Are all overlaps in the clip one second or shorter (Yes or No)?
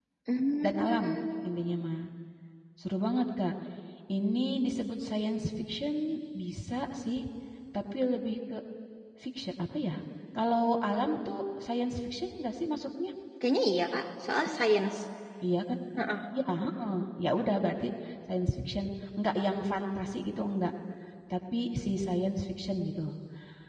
Yes